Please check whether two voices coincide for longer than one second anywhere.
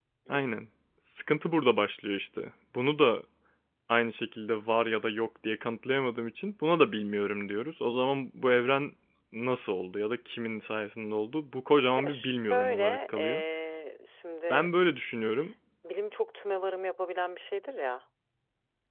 Yes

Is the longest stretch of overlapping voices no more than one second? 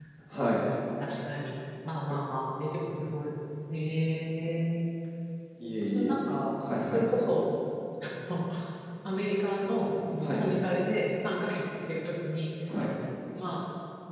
Yes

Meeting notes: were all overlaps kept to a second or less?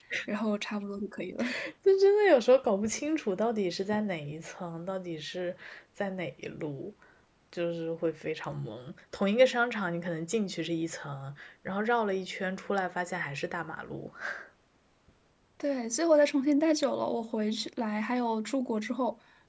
Yes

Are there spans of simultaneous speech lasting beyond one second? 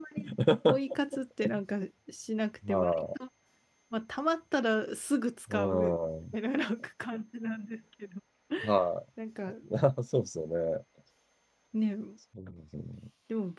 No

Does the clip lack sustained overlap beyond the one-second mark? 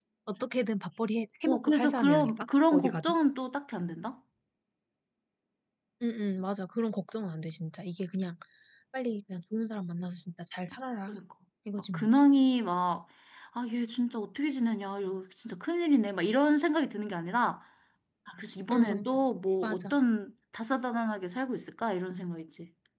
No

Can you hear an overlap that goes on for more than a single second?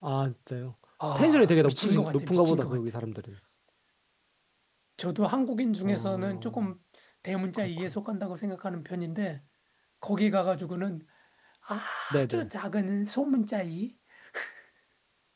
Yes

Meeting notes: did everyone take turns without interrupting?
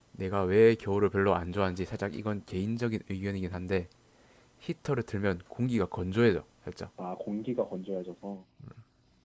Yes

